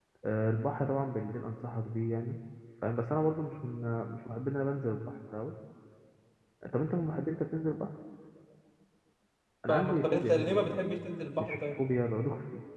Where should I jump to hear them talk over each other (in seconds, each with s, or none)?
9.7 s